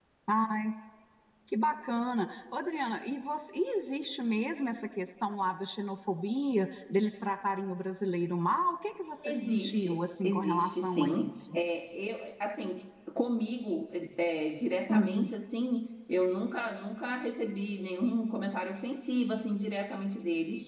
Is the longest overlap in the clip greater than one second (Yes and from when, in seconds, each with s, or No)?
Yes, from 9.2 s